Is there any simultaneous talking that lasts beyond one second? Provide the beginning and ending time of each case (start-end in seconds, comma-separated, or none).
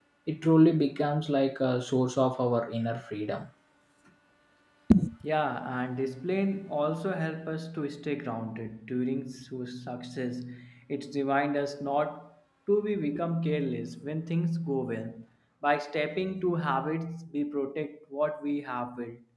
none